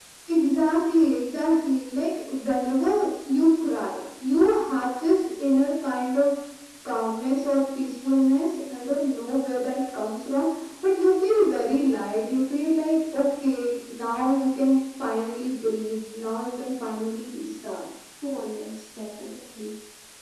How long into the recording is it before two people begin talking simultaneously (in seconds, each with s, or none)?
none